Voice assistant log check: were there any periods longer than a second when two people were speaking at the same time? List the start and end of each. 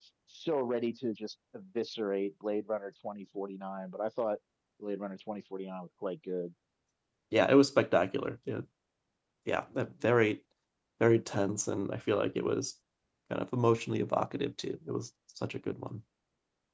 none

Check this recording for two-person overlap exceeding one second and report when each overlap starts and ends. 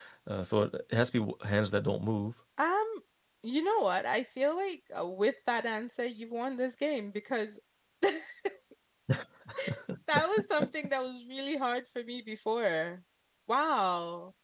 none

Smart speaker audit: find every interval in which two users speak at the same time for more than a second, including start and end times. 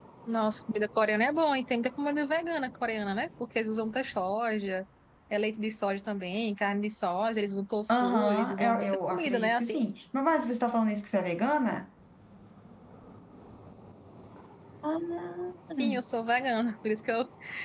7.9-9.8

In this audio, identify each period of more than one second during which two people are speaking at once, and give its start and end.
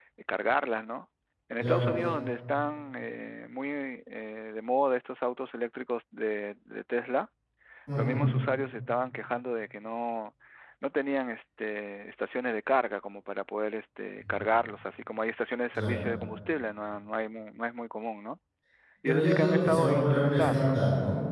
19.1-20.8

